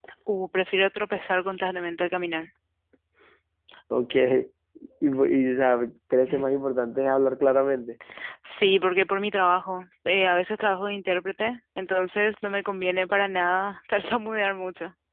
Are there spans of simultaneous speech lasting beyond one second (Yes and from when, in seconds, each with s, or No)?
No